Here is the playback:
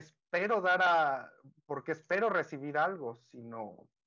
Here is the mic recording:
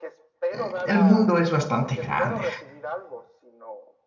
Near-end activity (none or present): present